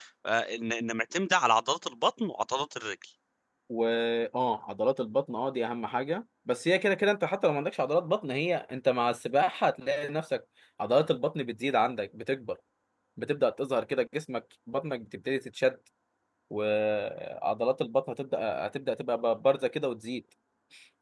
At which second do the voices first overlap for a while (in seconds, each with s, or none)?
none